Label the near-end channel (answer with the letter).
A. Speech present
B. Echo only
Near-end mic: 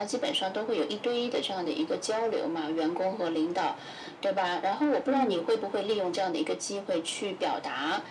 A